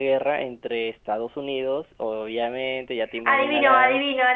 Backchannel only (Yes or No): No